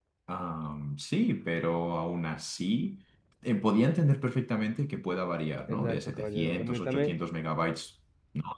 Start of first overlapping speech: 5.7 s

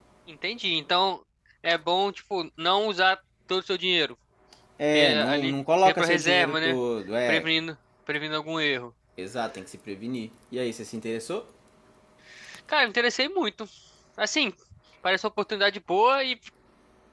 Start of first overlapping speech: 4.9 s

